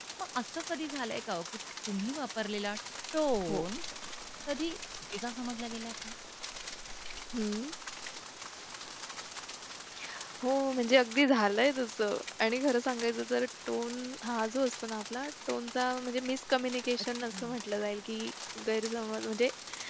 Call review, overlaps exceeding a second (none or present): none